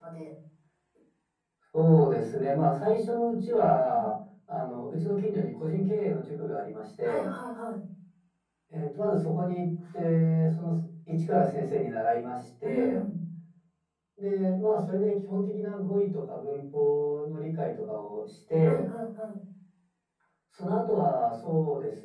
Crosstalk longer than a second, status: none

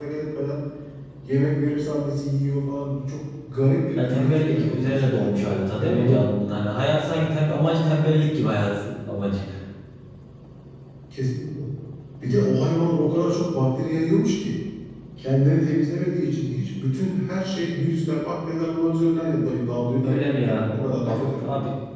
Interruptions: present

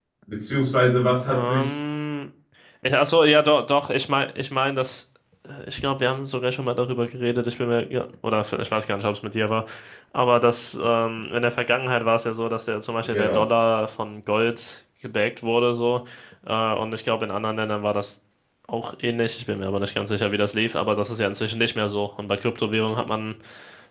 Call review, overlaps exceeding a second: none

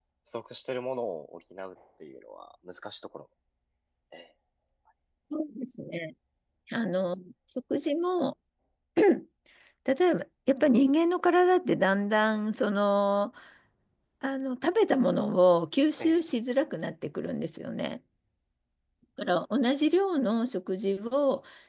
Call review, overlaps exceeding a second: none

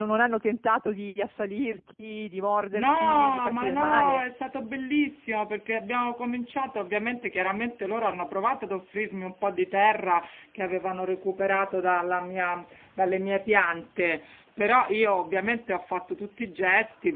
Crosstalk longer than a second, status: present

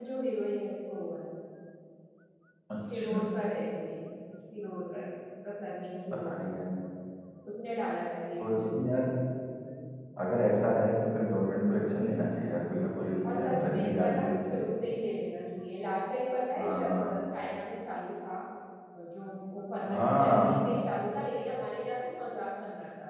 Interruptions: present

